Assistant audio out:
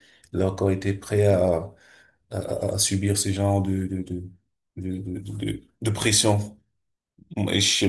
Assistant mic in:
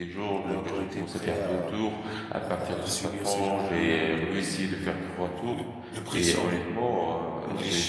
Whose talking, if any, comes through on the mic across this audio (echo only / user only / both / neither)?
both